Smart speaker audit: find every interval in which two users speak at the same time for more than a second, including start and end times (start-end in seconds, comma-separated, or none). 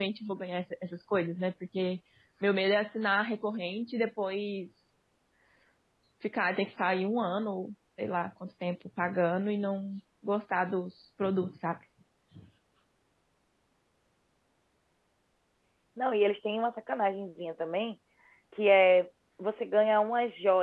none